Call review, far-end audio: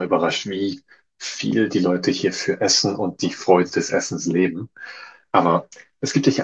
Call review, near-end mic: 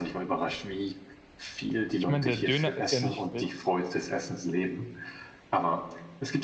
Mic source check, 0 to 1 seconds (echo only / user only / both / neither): echo only